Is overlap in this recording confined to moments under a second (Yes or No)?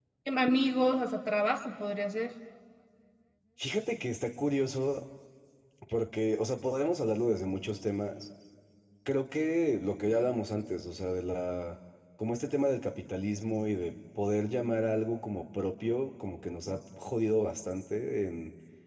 Yes